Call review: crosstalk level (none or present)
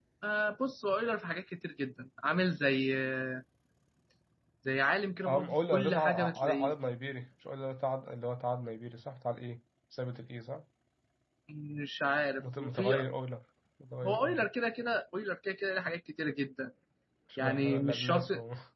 present